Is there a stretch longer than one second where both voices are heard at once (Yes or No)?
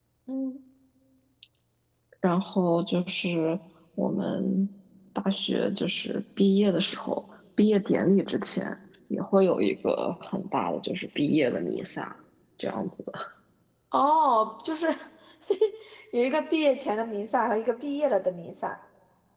No